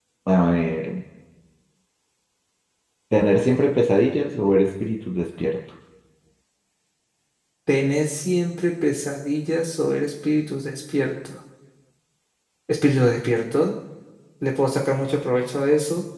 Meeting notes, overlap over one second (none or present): none